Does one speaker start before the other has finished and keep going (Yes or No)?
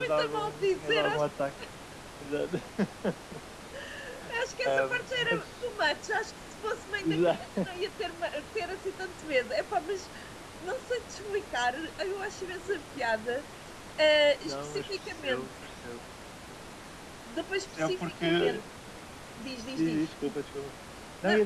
Yes